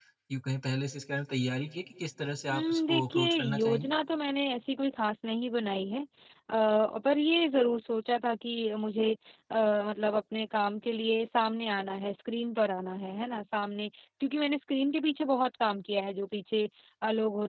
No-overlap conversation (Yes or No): No